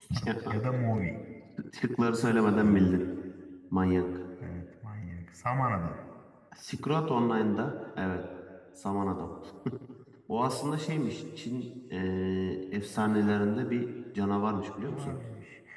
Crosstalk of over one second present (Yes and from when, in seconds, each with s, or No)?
No